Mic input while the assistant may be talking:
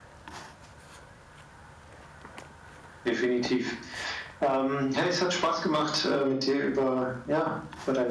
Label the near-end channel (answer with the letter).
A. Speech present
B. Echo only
B